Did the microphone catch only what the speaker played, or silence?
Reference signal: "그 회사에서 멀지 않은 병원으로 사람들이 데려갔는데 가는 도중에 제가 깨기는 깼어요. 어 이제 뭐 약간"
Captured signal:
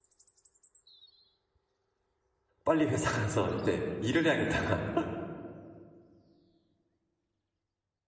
No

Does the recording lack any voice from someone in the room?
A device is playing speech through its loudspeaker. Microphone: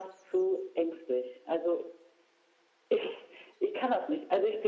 Yes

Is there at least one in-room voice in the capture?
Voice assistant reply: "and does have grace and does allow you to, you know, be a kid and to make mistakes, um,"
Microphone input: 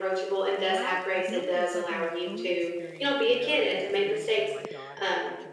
Yes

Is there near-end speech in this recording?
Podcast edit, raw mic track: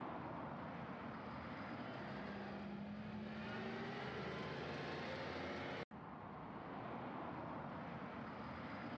No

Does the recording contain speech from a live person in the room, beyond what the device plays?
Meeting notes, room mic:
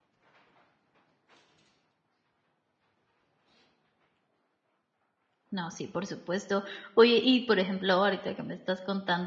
Yes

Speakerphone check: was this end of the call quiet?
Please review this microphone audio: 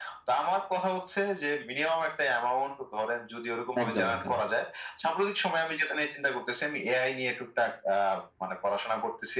No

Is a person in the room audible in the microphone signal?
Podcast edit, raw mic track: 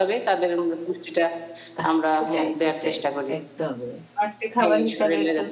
Yes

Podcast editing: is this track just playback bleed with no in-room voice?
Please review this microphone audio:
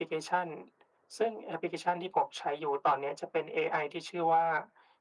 Yes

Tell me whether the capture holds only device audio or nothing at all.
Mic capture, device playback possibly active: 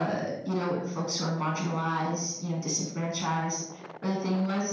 Yes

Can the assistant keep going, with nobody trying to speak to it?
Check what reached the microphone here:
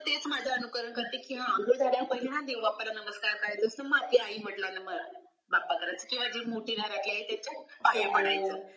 No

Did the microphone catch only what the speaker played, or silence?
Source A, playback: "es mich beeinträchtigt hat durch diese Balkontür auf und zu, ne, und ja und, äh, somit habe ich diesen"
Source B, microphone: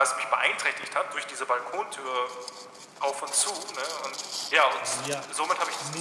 No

